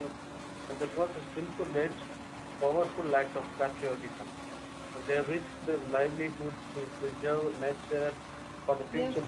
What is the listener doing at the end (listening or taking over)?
taking over